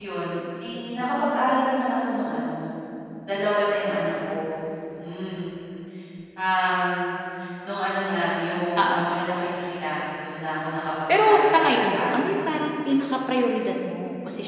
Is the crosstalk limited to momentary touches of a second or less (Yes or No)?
No